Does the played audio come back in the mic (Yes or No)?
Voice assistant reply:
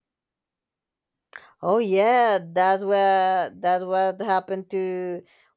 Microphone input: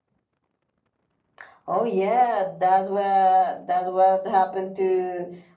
Yes